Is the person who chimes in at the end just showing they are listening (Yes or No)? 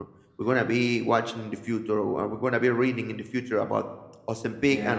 Yes